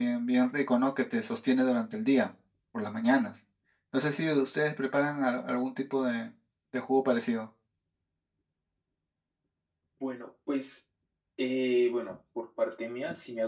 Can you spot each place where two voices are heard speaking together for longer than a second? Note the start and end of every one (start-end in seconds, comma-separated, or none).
none